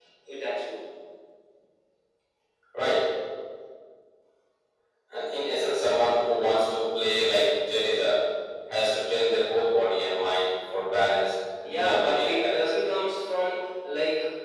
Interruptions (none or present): present